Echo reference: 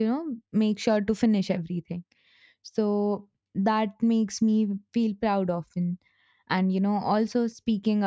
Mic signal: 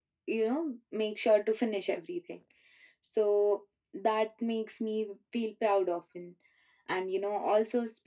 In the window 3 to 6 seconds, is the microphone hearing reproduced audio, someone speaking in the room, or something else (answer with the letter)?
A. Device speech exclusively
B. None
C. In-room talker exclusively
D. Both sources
A